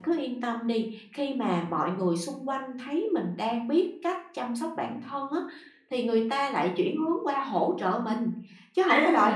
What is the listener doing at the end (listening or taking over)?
taking over